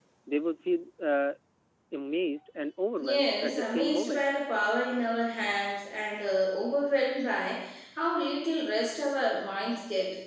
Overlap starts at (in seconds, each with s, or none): 3.0 s